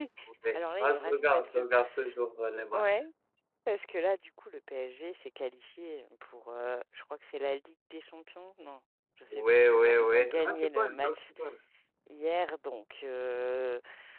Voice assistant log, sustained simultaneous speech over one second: present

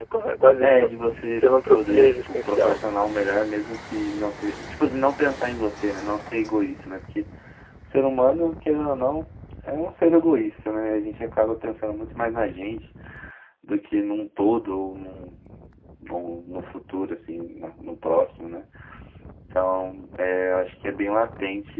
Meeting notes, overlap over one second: present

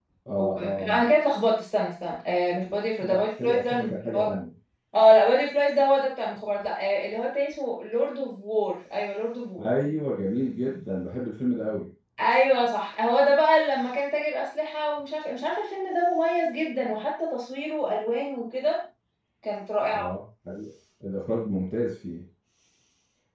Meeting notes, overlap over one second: present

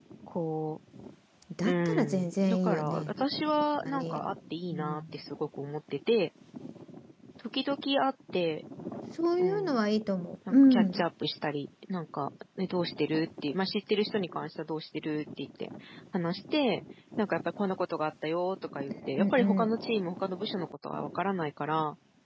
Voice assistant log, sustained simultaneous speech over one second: present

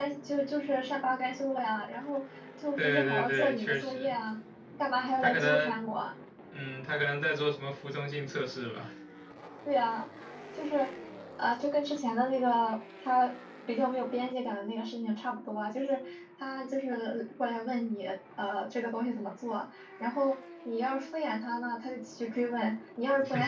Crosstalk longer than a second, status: present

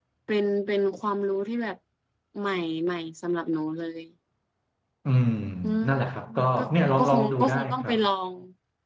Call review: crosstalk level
present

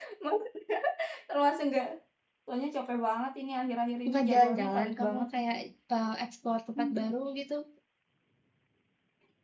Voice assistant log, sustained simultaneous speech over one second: present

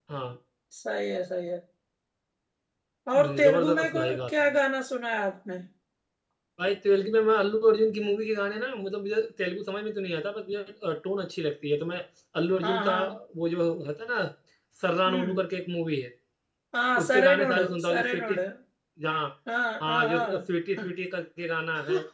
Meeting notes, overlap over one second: present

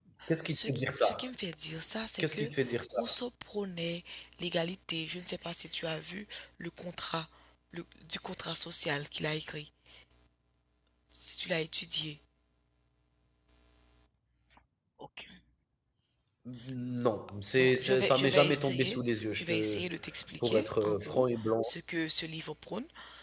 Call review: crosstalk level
present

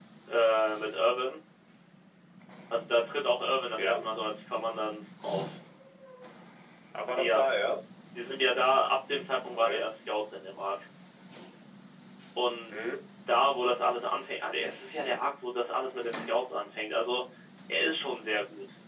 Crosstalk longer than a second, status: none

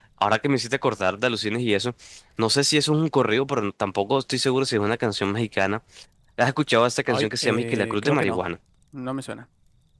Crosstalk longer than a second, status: present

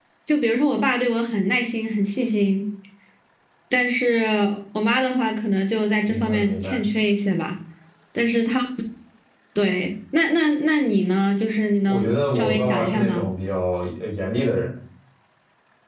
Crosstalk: present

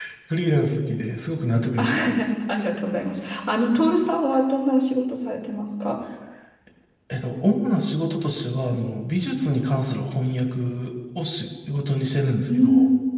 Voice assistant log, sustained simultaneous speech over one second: none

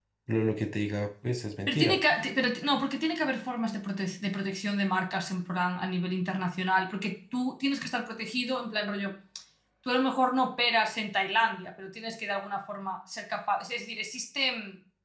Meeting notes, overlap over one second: none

